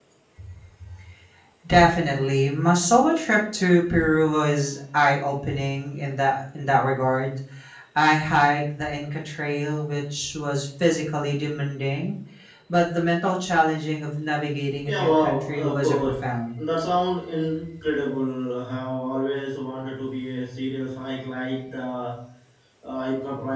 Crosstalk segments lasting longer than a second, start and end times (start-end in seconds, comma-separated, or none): 14.9-16.6